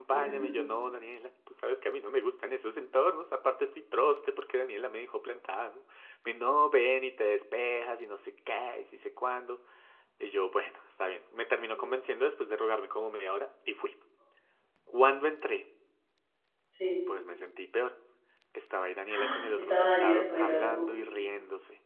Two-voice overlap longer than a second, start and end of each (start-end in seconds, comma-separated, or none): 19.1-20.9